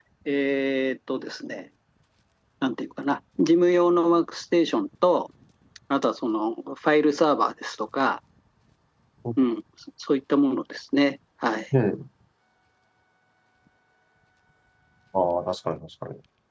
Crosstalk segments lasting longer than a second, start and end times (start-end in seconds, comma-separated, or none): none